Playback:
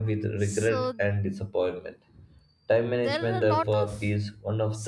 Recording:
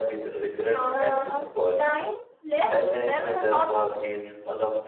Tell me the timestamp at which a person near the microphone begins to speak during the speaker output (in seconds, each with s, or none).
0.9 s